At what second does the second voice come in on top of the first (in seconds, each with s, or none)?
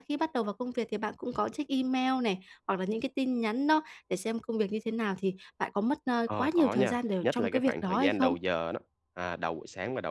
6.3 s